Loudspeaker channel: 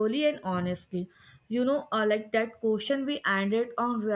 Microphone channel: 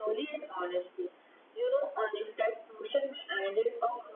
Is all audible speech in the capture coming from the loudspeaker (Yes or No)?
Yes